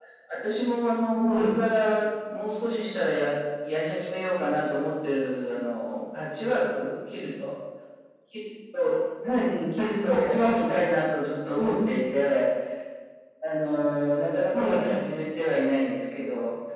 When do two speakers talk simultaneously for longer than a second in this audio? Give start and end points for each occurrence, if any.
9.5-10.9

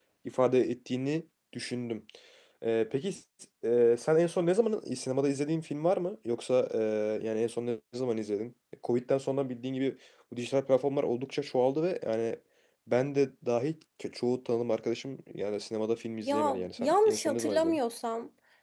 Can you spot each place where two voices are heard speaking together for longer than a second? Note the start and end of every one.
16.2-17.8

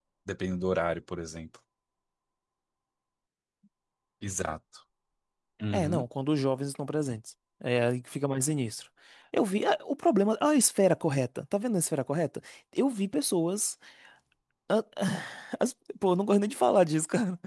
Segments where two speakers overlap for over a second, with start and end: none

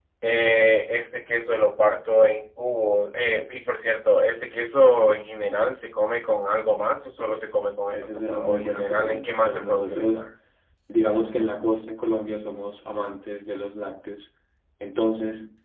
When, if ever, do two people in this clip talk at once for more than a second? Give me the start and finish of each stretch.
7.9-10.3

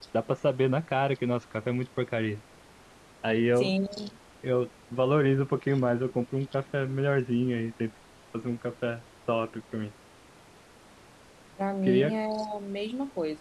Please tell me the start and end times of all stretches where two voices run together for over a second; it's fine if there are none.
none

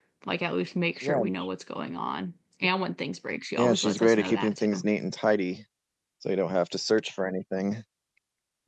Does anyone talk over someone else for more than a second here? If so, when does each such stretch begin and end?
3.6-4.8

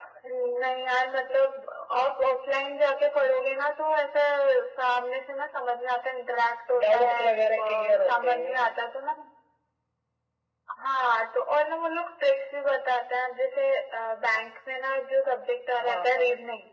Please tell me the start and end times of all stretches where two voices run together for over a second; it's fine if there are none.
6.8-8.5

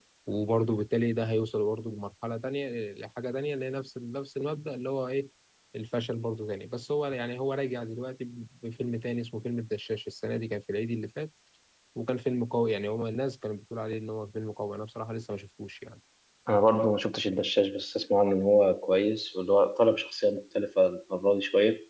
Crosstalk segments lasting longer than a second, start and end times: none

